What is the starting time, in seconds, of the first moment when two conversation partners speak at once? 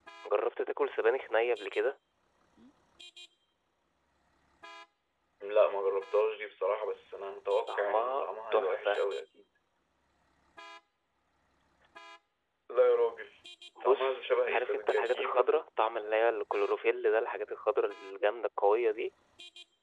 7.7 s

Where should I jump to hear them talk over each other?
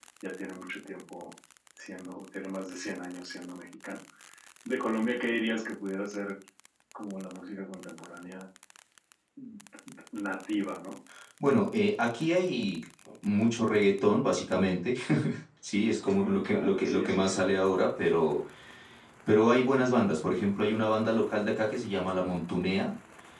16.1 s

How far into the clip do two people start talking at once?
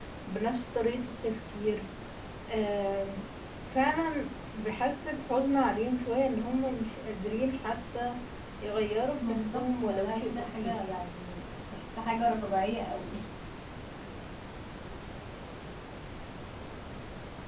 9.2 s

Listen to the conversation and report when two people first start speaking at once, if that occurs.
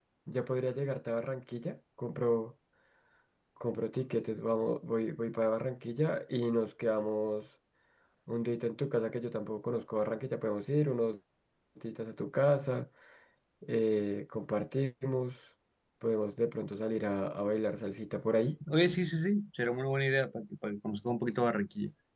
none

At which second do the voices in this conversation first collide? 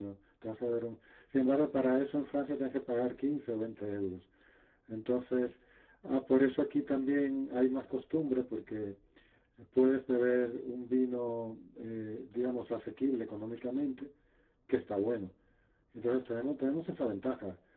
none

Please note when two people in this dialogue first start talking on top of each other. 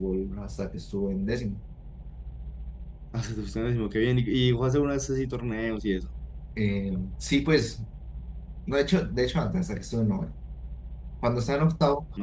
none

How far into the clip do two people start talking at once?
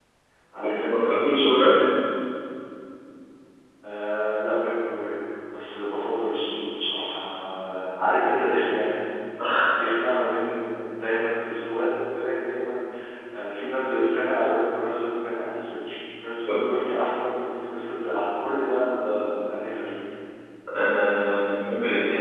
0.6 s

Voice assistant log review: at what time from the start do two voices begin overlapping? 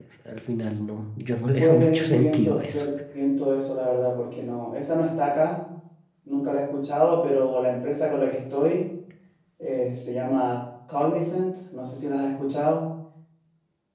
1.5 s

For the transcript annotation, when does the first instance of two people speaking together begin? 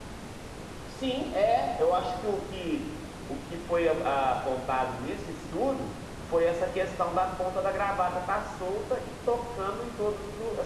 none

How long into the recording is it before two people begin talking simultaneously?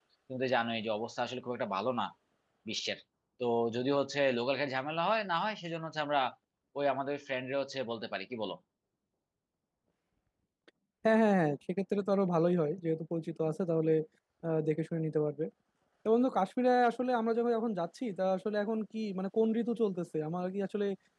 none

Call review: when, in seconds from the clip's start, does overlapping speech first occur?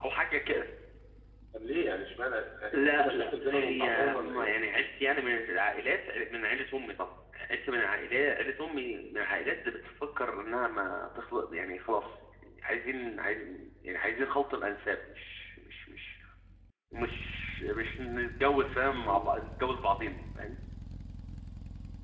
2.7 s

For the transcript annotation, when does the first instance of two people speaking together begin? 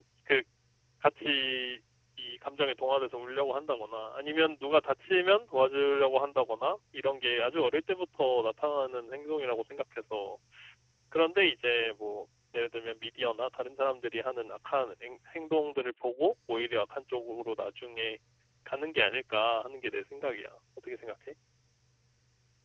none

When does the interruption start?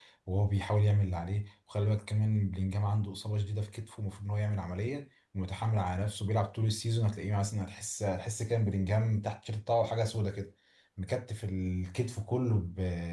none

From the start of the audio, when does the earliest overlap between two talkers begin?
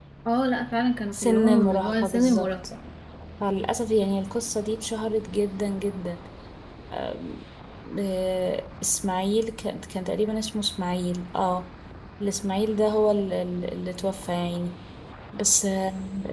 1.1 s

